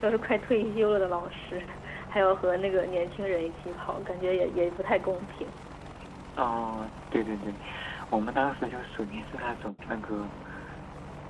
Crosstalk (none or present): none